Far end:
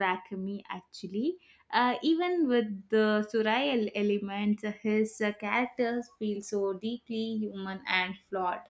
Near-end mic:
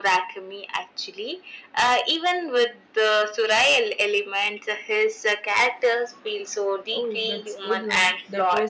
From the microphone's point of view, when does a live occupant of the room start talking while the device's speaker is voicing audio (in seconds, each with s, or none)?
6.9 s